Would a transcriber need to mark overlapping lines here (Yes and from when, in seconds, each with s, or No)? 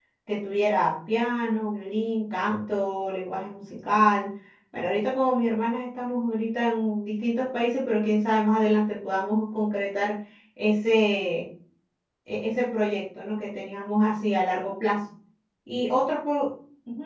No